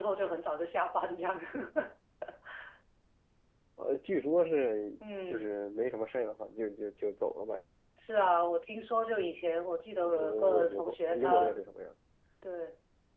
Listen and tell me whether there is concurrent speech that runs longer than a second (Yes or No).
Yes